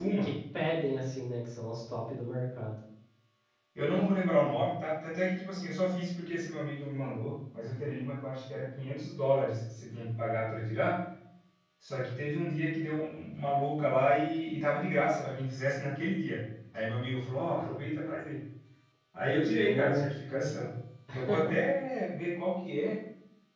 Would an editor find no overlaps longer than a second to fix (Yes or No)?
No